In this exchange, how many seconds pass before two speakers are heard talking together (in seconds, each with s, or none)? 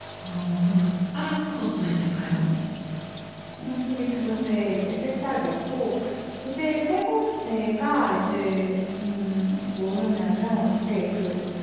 none